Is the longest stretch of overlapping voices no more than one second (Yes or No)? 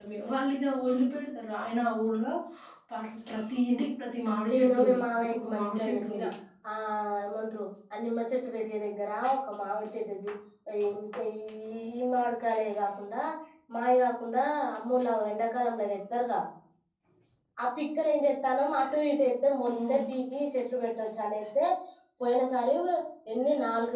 No